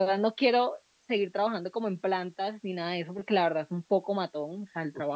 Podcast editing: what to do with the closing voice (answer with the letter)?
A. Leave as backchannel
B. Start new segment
A